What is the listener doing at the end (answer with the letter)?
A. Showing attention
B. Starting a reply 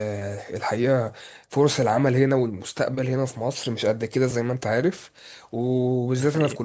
A